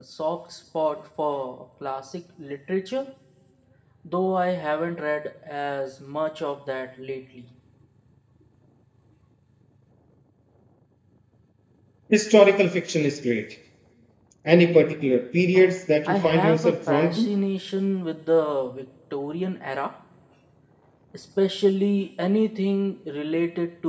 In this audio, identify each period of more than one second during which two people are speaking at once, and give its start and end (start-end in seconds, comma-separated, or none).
16.1-17.3